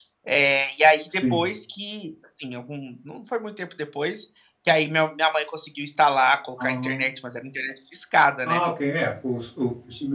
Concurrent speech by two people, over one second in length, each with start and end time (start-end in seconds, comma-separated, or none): none